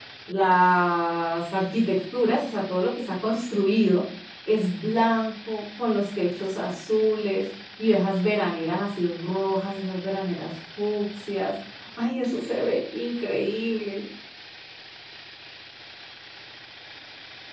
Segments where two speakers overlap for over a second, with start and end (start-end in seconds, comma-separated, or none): none